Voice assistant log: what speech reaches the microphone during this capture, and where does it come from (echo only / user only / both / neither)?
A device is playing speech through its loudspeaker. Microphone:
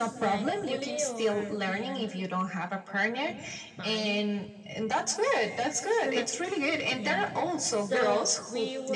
both